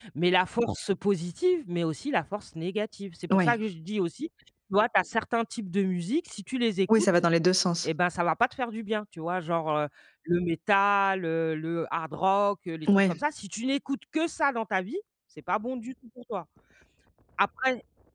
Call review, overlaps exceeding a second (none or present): none